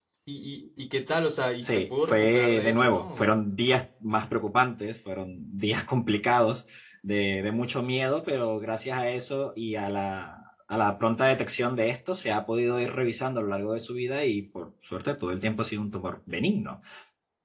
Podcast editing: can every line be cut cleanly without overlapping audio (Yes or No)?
No